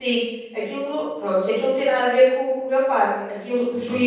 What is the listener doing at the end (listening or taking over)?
listening